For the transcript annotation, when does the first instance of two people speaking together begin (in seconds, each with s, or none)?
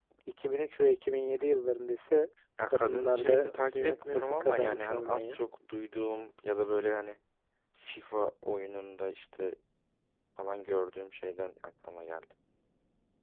2.7 s